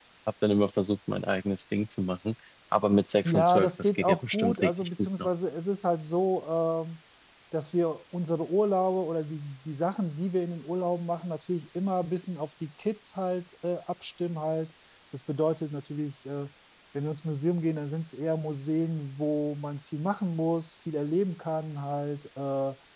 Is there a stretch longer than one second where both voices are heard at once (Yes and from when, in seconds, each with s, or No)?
Yes, from 3.2 s